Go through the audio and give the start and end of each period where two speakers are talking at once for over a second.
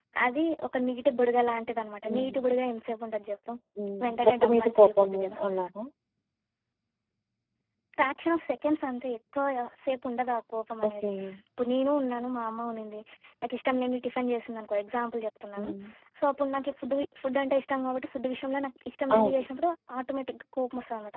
4.0-5.4

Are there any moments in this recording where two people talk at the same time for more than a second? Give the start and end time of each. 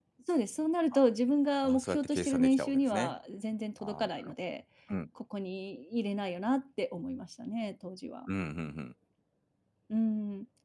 1.6-3.1

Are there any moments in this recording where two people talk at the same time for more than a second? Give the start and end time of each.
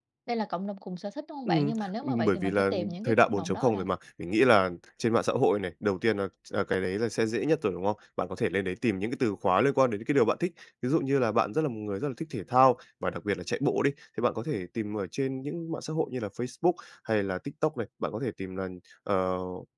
1.5-3.8

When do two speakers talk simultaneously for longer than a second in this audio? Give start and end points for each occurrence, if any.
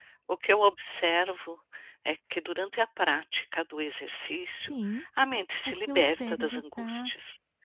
5.7-7.1

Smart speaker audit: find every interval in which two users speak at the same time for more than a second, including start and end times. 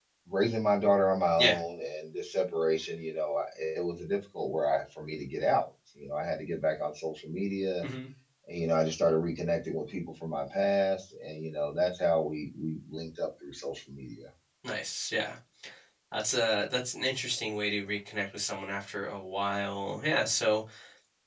none

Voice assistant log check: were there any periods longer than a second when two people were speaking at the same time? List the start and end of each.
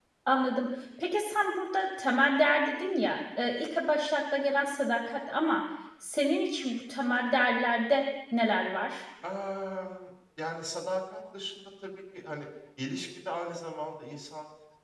none

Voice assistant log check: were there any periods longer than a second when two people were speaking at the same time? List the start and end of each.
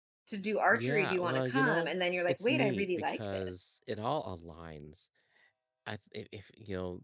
0.7-1.9, 2.3-3.5

